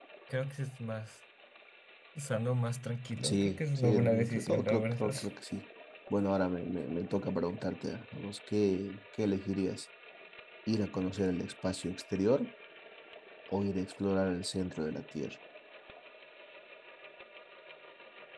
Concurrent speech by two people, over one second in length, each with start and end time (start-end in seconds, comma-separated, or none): 3.2-5.1